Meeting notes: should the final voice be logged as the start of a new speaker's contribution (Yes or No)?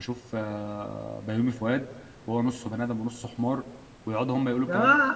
No